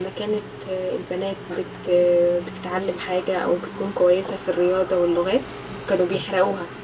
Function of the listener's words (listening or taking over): listening